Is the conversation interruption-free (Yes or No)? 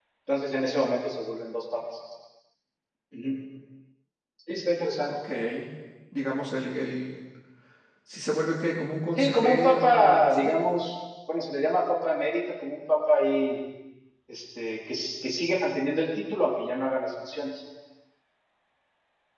No